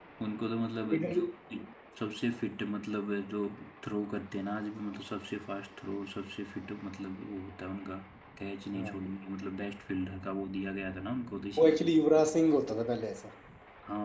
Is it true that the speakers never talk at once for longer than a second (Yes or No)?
Yes